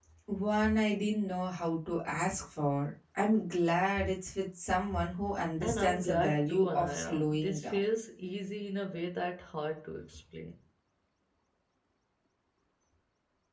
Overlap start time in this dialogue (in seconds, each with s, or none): 5.6 s